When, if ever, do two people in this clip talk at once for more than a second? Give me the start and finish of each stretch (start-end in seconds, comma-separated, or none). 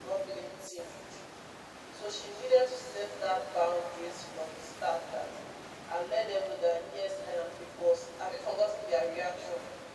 none